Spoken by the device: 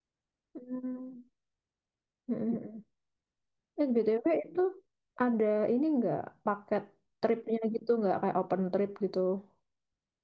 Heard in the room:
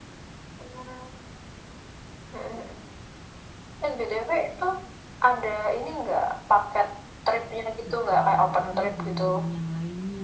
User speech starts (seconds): 8 s

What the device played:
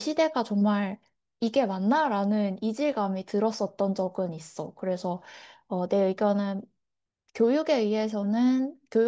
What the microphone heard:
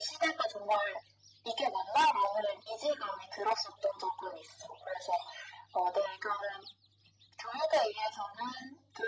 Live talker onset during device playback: none

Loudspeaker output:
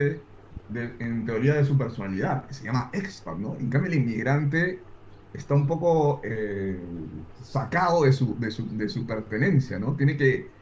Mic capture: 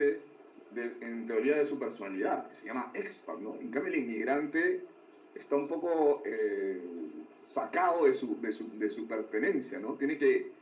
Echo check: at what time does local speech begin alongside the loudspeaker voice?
none

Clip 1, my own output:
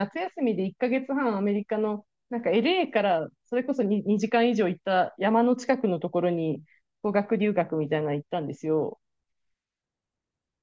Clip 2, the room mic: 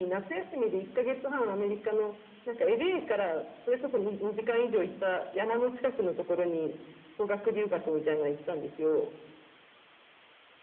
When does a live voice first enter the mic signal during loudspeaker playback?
none

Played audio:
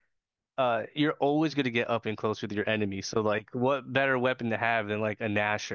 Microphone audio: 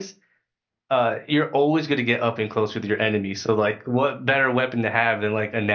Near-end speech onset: none

